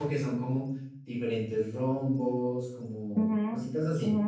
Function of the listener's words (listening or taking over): taking over